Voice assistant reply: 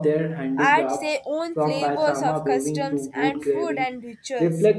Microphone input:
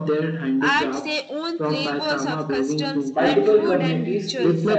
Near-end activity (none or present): present